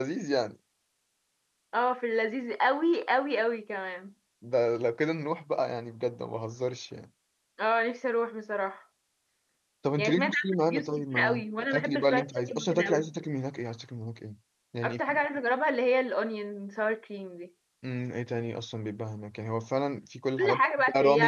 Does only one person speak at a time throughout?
No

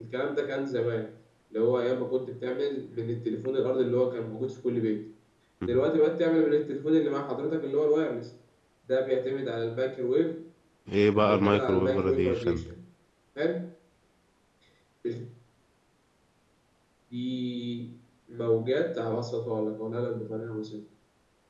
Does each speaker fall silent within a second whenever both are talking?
No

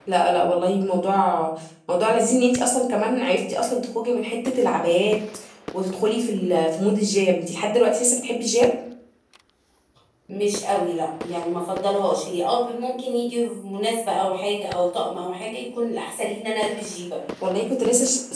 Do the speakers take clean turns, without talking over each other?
Yes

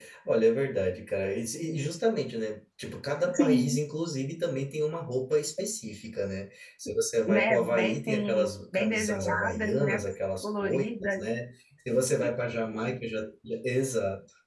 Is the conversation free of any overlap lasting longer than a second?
No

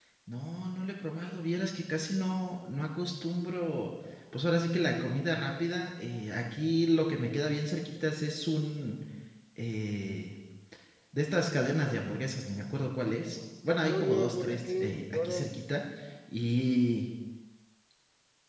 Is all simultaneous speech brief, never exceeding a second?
No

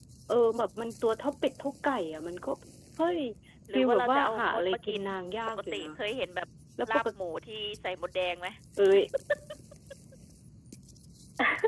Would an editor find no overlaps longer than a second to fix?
No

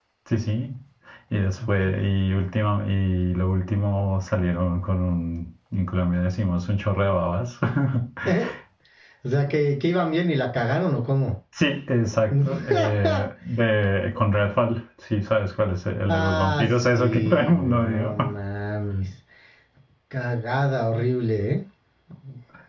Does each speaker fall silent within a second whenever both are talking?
No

